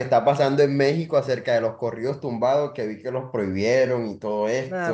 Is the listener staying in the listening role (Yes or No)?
No